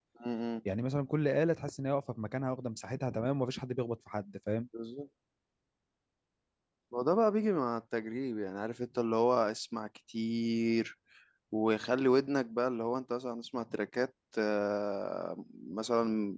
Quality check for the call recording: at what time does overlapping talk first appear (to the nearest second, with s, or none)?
none